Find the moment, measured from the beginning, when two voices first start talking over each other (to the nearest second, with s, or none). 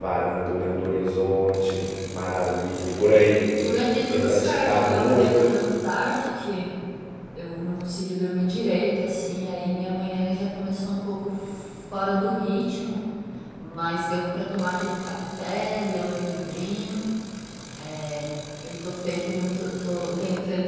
4 s